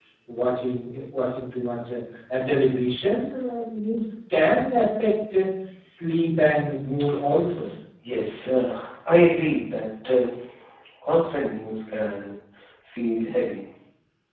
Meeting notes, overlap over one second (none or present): none